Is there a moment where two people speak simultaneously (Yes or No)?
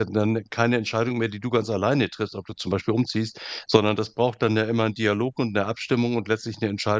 No